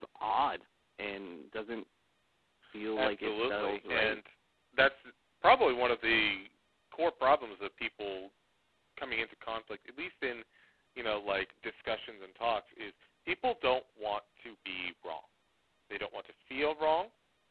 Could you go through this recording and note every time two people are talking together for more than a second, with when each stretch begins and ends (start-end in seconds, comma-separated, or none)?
3.0-4.2